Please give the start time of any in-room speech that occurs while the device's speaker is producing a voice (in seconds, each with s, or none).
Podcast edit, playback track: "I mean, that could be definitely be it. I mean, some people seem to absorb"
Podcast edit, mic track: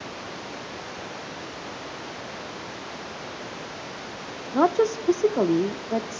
4.5 s